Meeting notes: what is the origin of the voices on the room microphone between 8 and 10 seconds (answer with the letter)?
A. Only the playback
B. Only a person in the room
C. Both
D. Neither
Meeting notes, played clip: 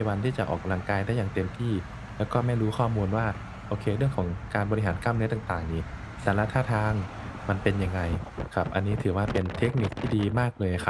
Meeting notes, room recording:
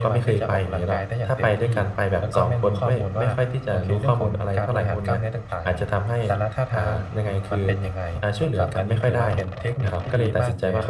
C